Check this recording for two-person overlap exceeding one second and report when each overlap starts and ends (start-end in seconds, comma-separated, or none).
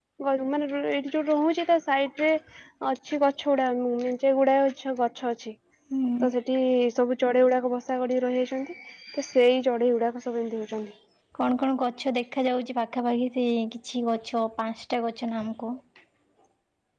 none